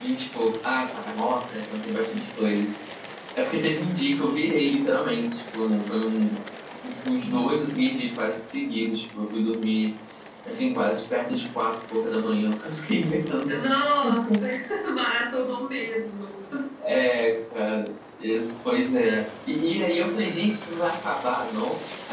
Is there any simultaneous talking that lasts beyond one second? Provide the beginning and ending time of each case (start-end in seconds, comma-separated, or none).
none